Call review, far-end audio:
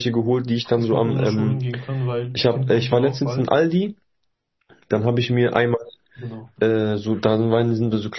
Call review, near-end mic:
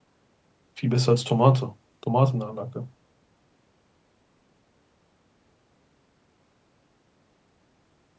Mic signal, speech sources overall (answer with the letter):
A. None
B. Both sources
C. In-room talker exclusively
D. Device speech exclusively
C